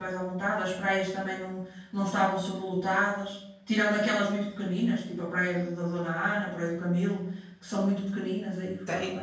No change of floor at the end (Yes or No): No